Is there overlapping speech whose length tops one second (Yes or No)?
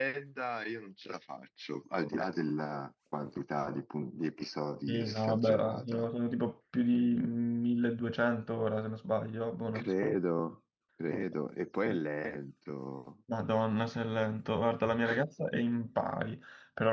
Yes